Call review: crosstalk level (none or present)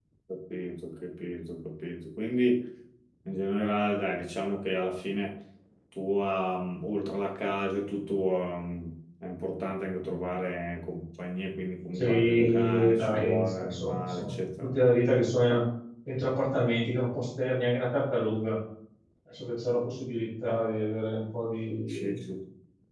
present